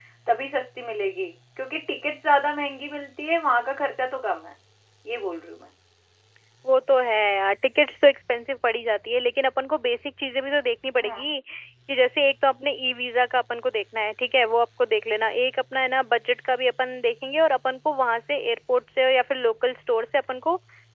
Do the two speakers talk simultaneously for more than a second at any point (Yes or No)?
No